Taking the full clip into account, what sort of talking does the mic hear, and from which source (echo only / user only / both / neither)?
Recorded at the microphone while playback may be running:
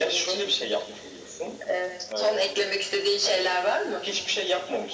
echo only